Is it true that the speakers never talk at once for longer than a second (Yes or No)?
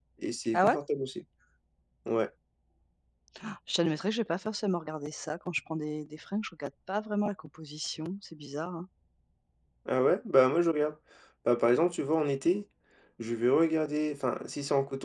Yes